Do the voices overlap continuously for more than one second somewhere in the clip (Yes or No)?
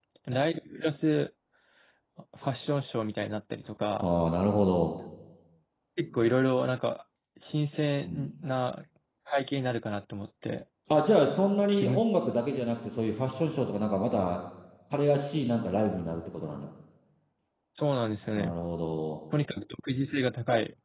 No